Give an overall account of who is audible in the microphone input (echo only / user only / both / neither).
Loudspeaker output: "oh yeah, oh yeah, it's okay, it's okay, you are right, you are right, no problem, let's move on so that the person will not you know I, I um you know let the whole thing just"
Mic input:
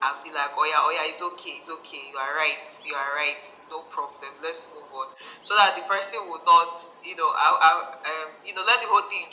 echo only